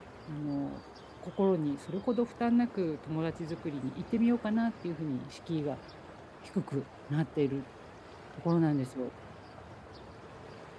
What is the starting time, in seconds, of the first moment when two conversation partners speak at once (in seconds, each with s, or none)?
none